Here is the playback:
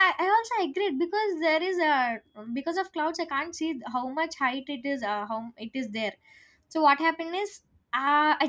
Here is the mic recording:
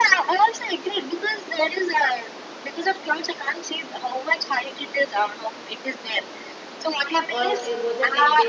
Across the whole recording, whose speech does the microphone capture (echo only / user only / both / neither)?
both